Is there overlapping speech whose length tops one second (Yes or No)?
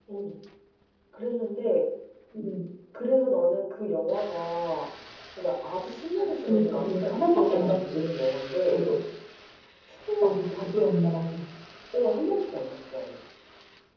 Yes